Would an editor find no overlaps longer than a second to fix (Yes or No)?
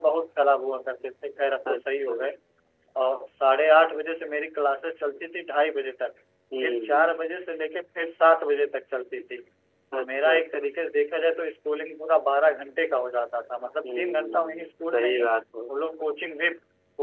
No